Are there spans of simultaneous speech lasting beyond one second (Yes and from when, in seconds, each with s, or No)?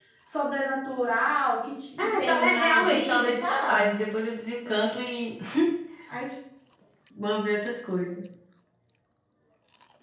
Yes, from 2.0 s